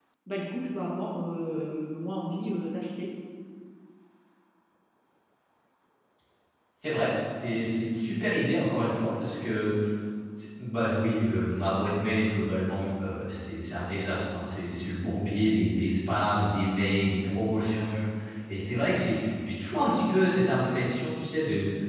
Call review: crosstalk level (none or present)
none